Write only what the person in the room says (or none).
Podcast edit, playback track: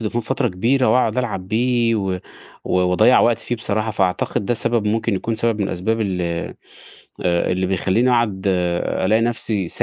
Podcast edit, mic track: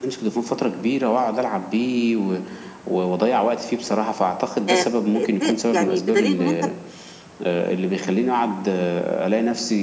آآ ت يعني بدليل إن أنت